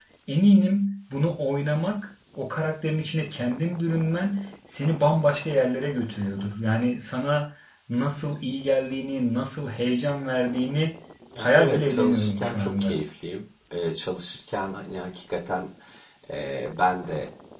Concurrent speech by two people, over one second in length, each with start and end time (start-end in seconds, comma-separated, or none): 11.4-13.0